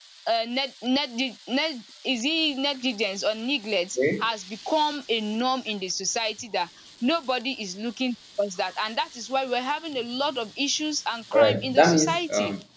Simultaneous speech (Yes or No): Yes